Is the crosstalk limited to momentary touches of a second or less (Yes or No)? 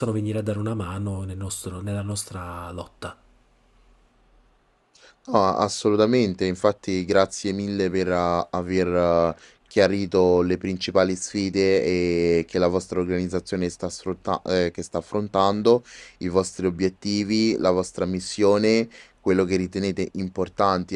Yes